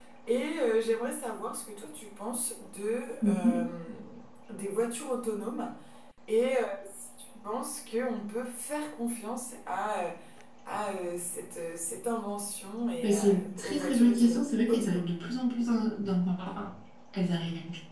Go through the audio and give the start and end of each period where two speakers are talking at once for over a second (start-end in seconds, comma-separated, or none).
13.0-15.1